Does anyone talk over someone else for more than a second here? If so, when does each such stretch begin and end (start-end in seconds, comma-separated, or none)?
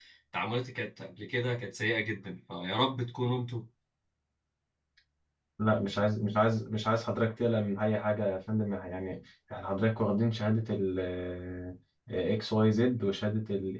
none